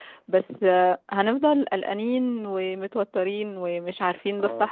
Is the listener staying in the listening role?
Yes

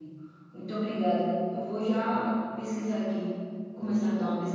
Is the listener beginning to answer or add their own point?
No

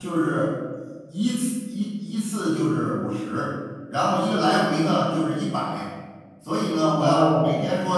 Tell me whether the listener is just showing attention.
Yes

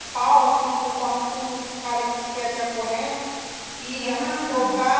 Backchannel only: Yes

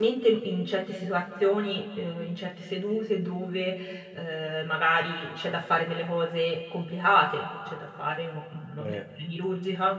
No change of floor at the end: Yes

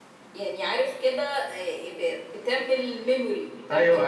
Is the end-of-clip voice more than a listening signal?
Yes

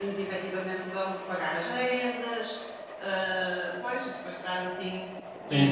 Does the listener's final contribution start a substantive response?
Yes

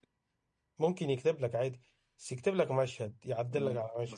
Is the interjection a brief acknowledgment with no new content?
No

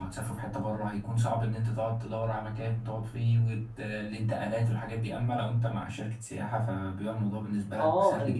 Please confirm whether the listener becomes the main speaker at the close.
Yes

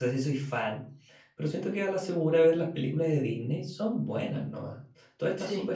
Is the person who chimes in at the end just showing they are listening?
Yes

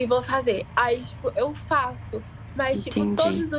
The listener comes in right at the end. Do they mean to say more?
No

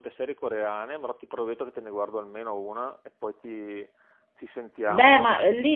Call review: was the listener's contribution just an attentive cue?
No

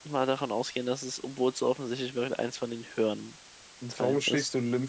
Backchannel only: No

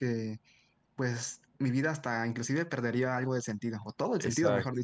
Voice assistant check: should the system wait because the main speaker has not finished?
No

